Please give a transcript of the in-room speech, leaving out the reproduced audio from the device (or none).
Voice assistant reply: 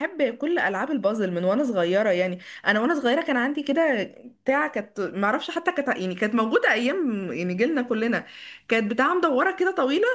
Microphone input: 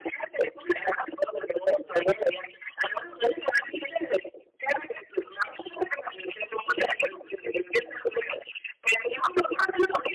none